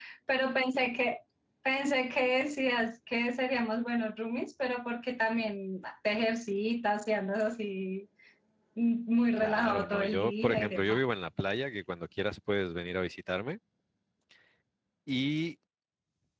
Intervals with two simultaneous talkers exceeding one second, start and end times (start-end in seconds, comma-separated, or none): 9.4-11.1